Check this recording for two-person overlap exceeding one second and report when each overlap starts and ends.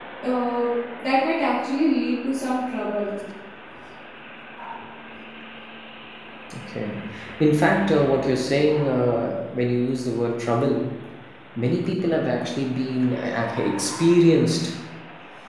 none

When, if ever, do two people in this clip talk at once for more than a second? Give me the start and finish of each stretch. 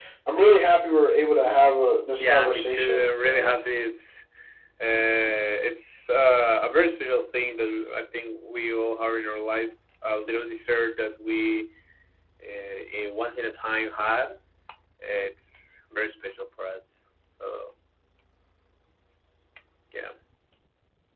2.2-3.5

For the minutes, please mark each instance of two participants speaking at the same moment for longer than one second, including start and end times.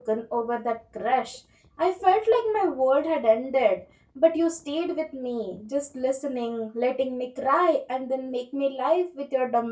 none

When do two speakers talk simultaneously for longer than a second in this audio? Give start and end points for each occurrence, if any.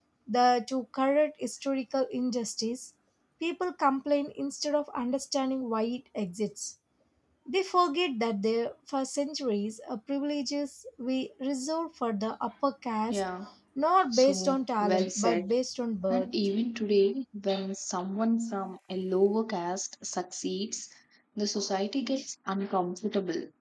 14.1-15.5

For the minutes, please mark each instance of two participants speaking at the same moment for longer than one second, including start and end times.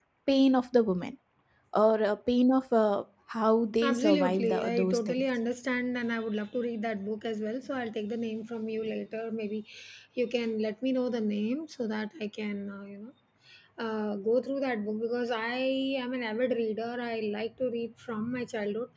3.8-5.2

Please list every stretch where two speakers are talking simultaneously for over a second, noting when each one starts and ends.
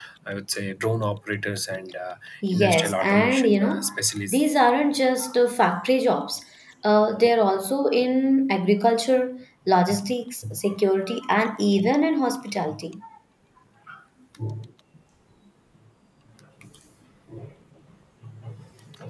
2.5-3.9

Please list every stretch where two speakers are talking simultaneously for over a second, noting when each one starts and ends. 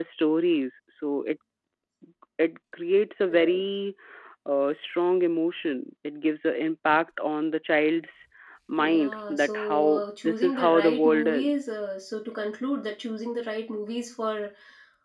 8.8-11.7

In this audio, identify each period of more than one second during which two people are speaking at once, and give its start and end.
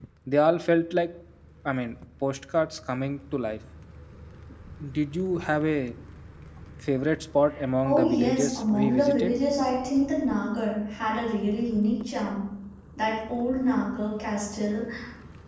7.8-9.3

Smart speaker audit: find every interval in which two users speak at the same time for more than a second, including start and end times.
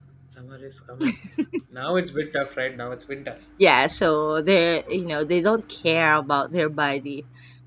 none

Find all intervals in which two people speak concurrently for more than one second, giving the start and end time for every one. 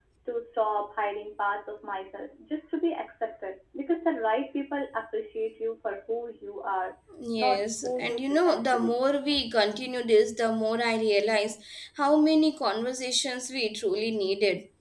7.4-9.0

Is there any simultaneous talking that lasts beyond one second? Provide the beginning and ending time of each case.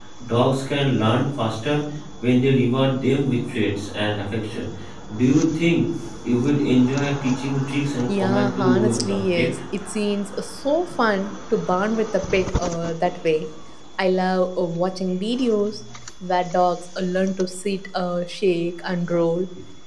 8.1-9.5

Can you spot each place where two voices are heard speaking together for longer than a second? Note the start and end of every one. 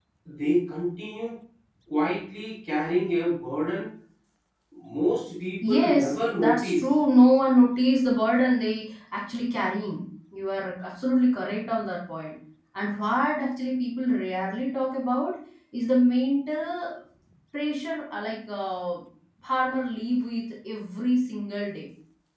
5.6-6.9

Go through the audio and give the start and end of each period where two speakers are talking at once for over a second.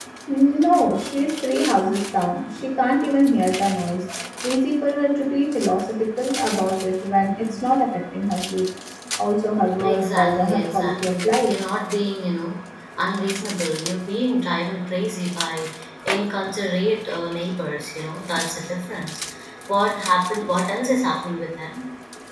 9.8-11.5

